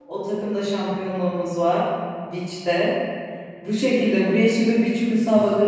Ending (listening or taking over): listening